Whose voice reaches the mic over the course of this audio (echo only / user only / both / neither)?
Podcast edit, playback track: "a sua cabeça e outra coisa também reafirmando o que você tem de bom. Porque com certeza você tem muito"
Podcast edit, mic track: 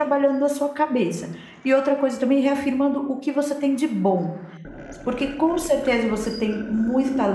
echo only